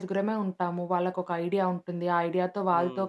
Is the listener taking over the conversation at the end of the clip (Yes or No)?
No